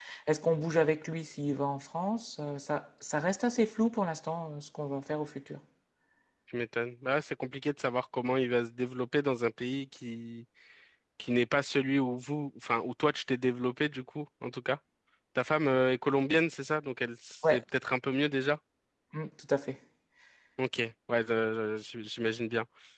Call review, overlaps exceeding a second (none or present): none